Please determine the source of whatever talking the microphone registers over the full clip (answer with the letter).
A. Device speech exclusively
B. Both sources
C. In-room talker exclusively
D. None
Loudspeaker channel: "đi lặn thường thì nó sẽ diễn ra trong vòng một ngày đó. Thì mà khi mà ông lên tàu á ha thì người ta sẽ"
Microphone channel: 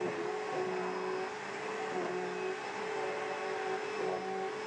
D